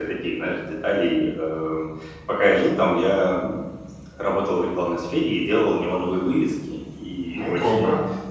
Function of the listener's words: listening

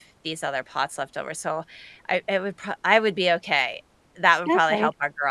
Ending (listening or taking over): taking over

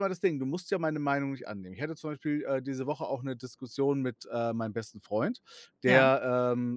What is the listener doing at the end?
listening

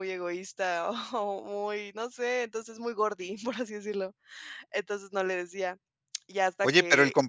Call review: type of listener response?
taking over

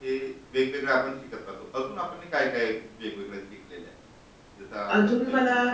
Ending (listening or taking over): taking over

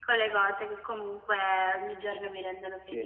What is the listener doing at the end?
taking over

